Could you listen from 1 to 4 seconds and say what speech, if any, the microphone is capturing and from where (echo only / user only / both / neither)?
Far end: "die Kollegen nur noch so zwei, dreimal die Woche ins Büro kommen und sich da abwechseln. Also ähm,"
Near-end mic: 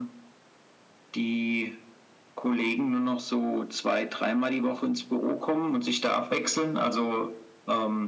echo only